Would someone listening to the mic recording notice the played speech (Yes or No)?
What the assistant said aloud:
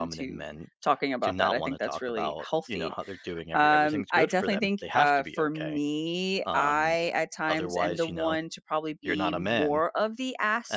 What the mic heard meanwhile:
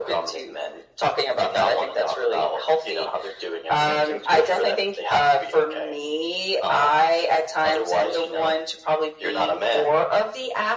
Yes